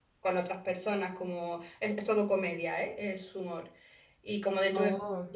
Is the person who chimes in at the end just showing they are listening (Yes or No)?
Yes